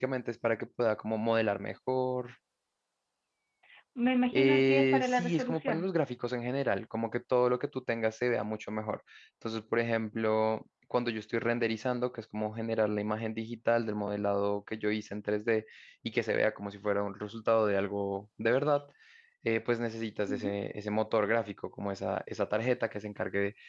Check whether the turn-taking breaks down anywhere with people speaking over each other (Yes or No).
Yes